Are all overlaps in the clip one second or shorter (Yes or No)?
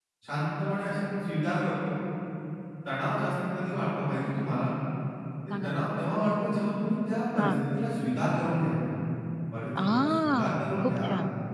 No